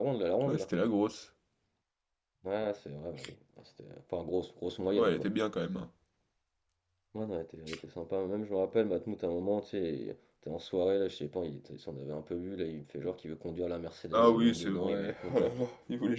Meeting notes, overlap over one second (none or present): present